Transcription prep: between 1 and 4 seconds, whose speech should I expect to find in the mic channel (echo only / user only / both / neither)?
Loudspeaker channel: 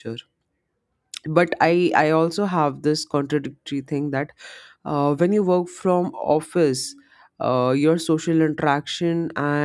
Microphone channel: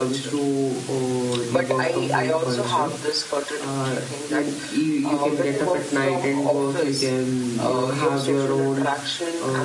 both